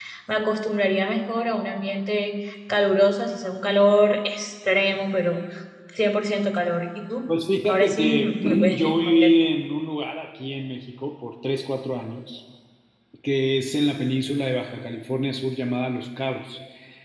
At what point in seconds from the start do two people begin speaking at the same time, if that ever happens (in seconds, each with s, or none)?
7.6 s